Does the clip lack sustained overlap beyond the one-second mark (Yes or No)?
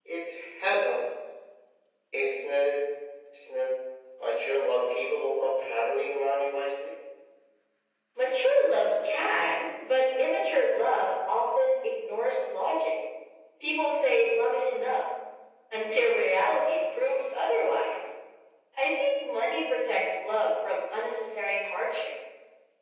Yes